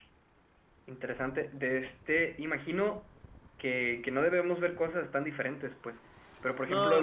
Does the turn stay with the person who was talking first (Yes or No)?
Yes